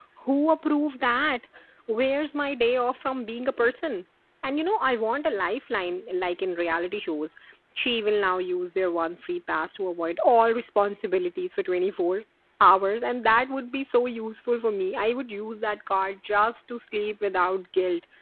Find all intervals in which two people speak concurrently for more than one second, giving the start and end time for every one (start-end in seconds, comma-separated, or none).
none